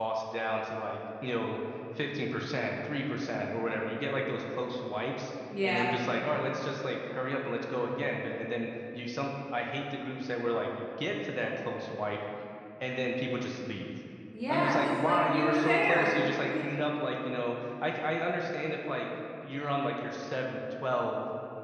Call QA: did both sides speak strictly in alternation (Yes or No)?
No